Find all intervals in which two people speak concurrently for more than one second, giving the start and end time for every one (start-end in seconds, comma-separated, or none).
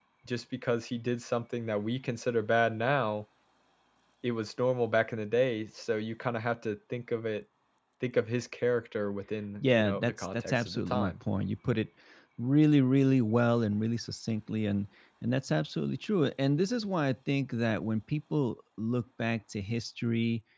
9.6-11.1